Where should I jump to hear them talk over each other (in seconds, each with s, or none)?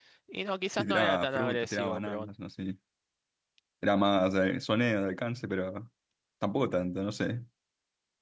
0.7 s